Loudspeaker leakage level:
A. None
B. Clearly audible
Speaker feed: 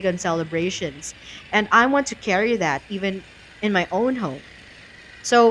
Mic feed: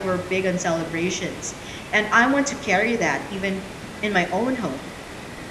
B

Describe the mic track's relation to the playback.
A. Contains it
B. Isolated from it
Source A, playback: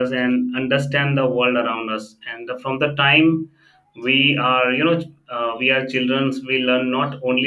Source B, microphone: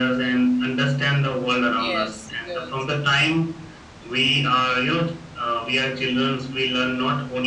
A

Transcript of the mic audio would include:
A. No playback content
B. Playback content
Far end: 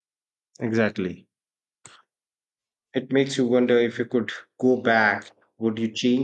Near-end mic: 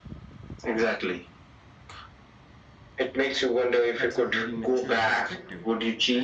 B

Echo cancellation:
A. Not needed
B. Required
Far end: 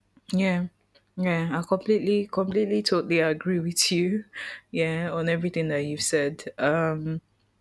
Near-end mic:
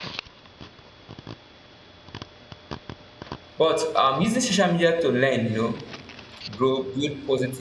A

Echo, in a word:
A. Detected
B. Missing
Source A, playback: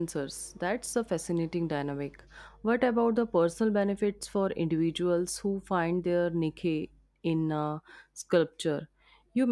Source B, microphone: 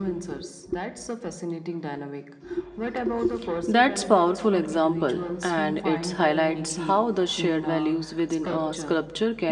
A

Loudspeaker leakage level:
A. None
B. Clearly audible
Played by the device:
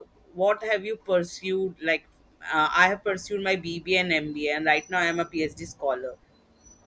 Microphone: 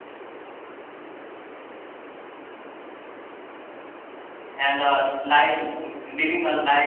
A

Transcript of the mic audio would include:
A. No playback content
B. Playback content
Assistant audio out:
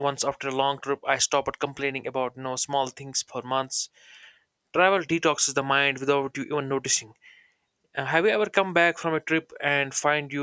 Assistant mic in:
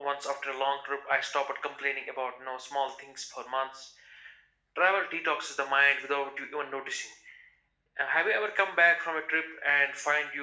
B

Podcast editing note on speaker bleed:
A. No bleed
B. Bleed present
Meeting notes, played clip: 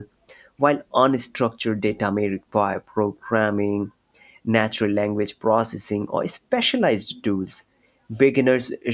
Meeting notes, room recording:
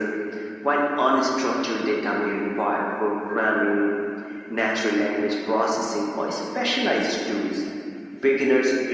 B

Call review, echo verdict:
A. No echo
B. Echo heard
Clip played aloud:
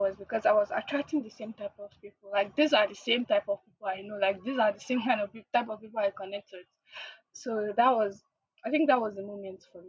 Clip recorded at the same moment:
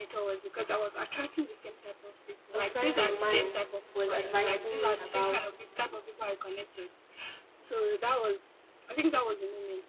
B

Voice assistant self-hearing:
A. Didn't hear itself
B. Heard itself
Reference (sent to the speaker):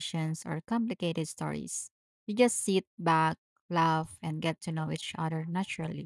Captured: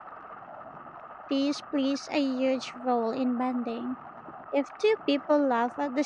A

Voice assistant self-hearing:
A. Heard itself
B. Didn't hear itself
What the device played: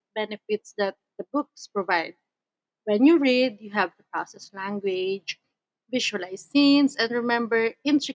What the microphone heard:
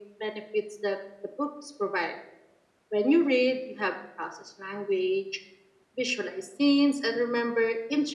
A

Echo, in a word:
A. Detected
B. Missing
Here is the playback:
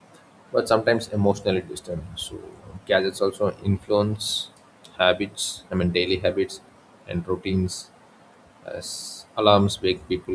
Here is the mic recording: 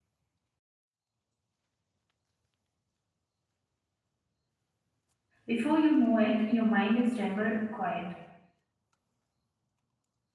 B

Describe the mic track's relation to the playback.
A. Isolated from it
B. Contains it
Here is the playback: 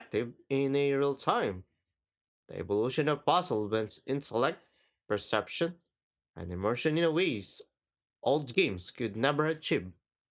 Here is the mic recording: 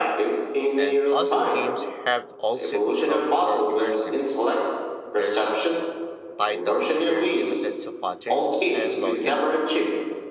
B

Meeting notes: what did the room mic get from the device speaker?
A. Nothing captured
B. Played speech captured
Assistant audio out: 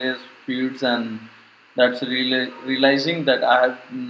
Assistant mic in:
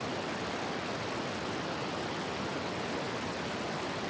A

